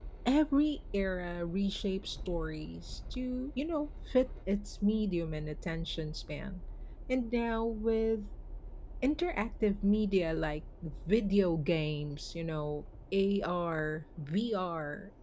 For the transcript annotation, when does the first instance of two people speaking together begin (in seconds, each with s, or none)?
none